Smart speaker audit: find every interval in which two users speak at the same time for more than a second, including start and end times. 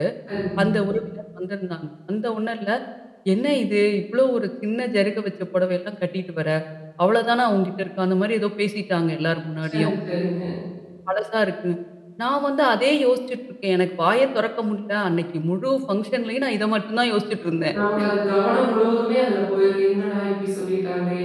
none

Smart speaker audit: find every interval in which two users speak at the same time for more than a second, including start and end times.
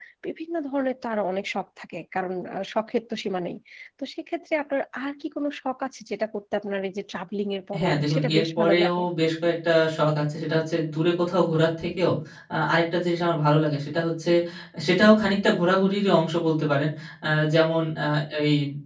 7.8-9.0

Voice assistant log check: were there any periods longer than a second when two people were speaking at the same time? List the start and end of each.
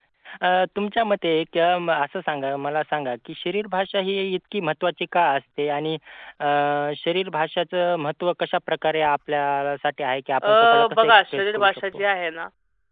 10.4-12.0

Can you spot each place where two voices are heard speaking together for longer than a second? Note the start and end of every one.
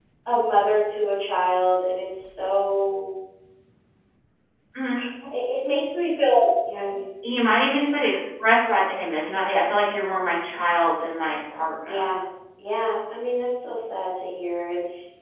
none

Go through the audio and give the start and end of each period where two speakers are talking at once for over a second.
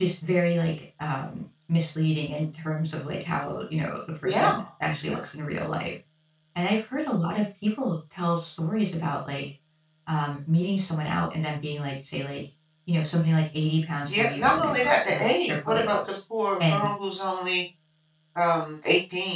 14.1-16.1

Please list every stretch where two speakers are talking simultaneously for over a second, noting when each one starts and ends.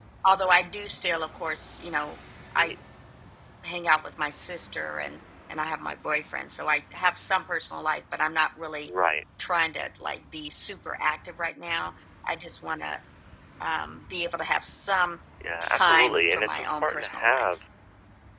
15.8-17.5

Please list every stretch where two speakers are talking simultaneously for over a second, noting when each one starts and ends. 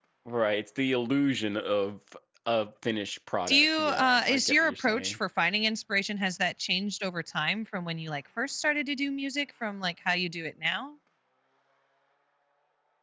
3.5-5.2

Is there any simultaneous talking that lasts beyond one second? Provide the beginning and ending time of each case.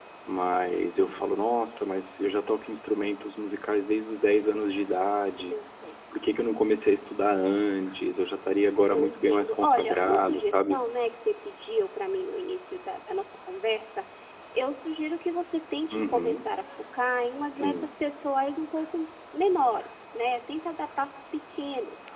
8.9-10.8

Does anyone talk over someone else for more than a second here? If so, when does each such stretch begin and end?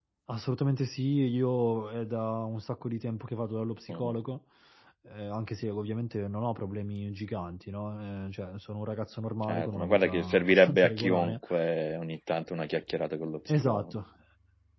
9.4-11.4

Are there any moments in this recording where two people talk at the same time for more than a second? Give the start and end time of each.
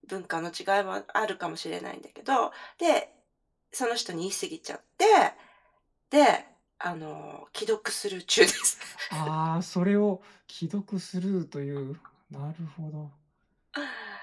none

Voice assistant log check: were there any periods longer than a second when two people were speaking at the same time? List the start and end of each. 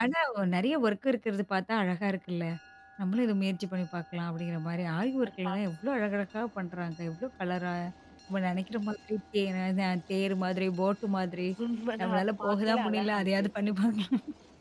12.0-13.5

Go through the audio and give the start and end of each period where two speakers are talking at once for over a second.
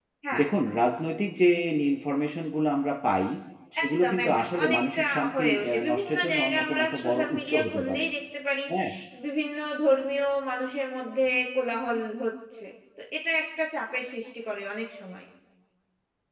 3.8-8.0

